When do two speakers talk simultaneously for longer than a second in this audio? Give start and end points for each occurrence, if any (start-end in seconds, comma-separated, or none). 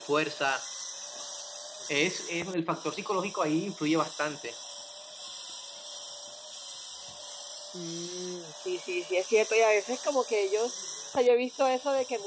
none